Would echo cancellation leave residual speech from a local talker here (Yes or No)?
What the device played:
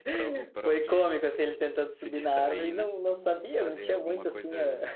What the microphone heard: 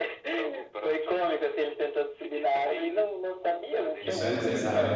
Yes